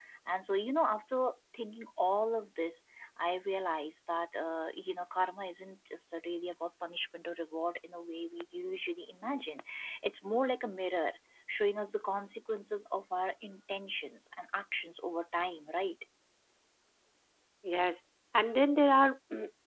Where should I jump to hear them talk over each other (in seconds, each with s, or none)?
none